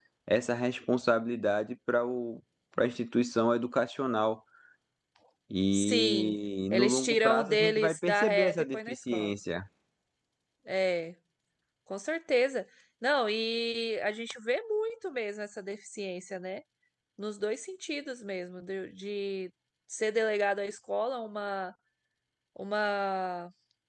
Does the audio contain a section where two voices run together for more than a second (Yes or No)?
Yes